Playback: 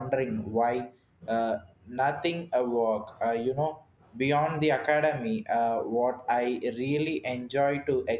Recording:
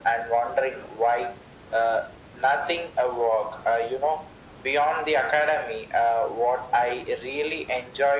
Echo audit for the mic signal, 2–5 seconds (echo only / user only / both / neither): echo only